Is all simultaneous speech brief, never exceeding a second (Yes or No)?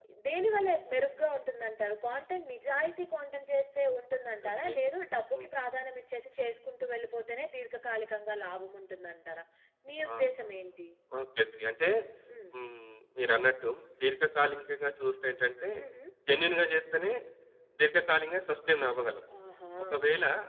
Yes